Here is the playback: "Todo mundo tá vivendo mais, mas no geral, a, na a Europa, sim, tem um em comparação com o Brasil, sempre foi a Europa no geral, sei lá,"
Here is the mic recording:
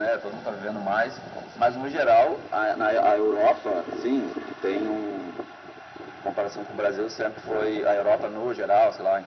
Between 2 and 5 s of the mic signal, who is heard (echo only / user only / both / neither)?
echo only